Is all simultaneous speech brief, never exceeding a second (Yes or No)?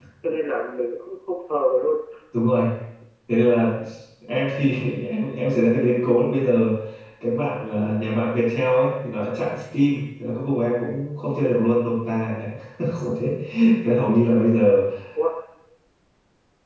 Yes